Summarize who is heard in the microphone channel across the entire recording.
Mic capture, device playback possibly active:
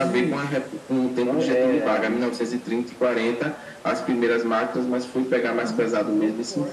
both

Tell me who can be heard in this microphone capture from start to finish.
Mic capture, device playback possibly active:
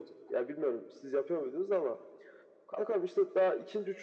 echo only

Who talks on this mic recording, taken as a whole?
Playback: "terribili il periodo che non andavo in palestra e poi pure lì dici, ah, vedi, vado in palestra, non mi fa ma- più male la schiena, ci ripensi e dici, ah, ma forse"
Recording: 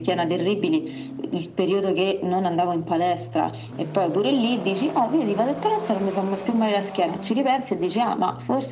echo only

